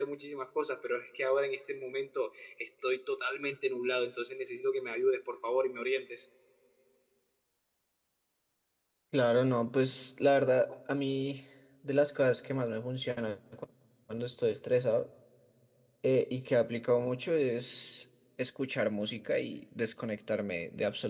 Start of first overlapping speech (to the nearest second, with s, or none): none